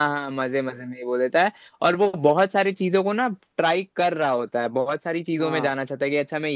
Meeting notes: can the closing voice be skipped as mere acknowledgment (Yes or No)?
Yes